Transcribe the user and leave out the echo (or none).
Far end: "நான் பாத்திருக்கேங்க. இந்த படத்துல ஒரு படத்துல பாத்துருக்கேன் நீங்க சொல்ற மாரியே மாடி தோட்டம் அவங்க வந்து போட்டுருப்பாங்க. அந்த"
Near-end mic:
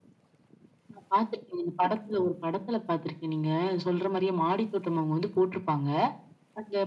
none